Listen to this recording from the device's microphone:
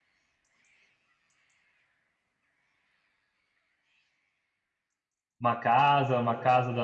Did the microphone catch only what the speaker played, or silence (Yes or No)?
No